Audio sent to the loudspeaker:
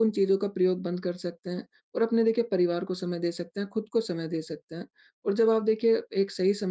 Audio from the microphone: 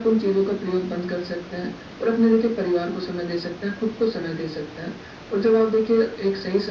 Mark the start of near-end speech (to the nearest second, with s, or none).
none